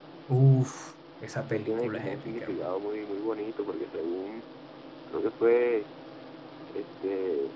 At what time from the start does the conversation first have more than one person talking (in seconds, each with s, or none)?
1.5 s